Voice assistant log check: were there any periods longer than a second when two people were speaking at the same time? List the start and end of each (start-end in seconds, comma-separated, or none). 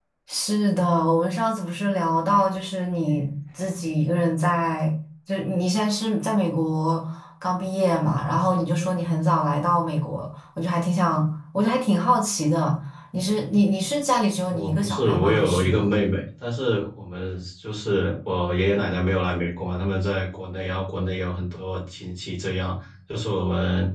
14.5-15.8